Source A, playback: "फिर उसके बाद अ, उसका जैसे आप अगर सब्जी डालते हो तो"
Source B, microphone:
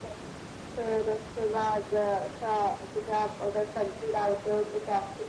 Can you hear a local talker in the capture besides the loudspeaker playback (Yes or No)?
No